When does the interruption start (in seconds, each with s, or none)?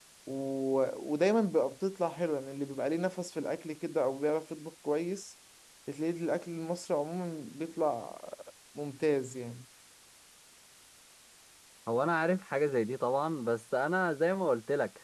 none